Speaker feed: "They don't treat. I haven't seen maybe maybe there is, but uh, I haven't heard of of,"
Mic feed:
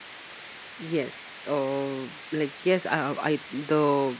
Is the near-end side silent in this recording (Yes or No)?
No